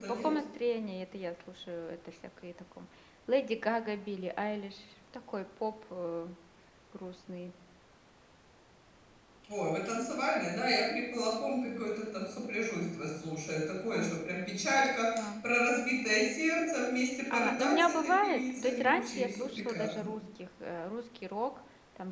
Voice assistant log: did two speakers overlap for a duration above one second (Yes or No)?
Yes